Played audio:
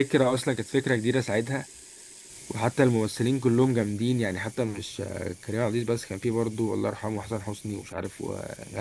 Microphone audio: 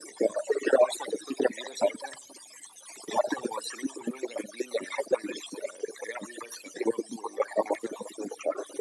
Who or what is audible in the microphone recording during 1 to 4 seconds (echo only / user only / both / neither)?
echo only